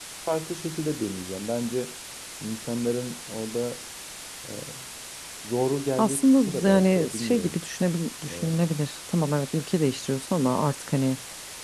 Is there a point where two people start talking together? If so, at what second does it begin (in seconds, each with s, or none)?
6.0 s